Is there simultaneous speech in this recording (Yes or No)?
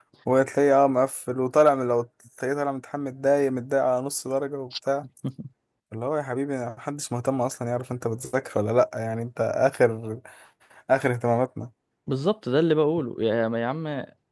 No